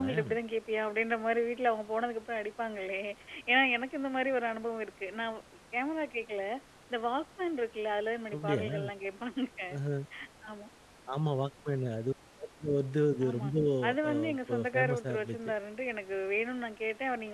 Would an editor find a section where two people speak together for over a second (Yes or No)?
Yes